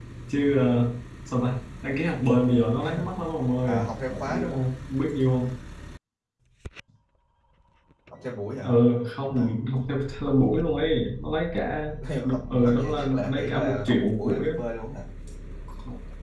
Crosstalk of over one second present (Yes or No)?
Yes